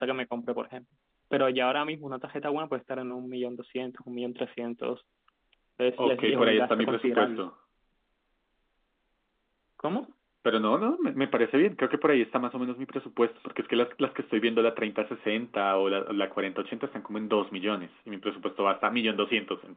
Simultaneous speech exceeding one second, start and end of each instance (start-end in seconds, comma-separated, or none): 6.0-7.4